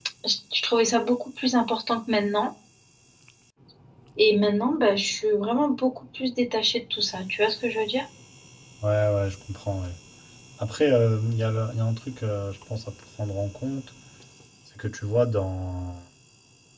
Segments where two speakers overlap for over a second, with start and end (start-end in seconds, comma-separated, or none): none